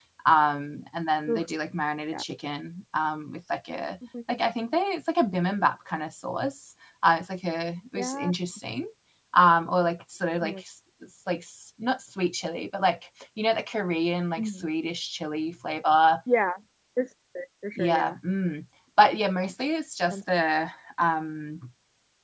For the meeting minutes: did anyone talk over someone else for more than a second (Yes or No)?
No